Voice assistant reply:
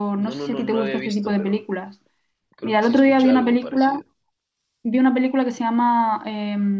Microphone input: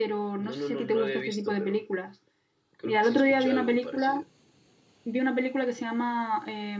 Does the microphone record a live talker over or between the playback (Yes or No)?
No